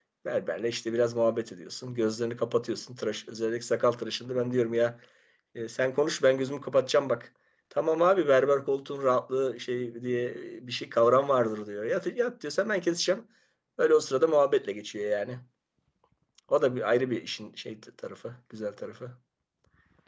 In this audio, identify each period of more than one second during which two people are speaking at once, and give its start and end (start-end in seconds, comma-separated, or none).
none